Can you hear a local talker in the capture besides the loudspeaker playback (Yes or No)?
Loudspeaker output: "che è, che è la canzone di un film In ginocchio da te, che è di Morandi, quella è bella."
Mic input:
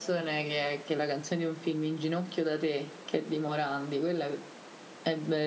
No